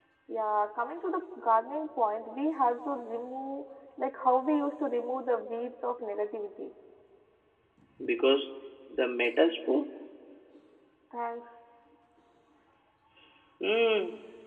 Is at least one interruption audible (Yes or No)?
No